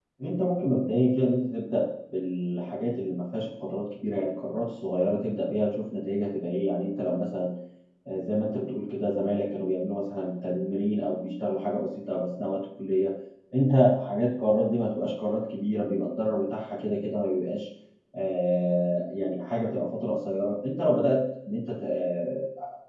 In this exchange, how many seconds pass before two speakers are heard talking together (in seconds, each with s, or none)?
none